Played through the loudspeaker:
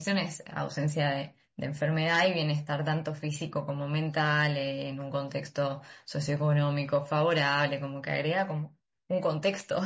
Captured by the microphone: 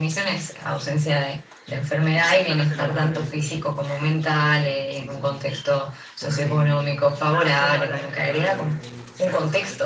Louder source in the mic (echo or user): echo